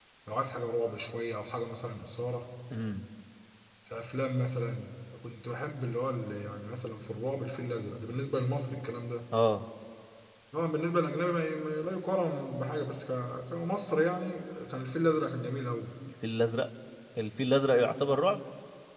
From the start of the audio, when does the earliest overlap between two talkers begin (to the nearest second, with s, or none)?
none